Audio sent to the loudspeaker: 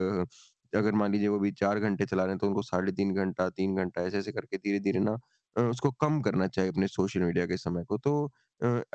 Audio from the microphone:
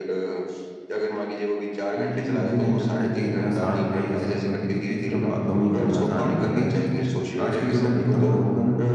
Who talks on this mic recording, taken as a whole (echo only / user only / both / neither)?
both